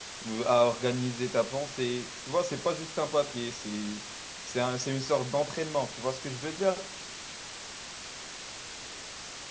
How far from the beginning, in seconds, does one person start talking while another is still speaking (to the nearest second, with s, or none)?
none